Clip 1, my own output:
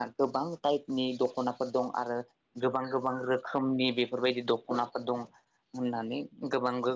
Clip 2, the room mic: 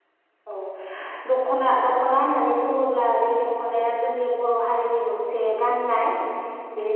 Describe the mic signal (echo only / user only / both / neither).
user only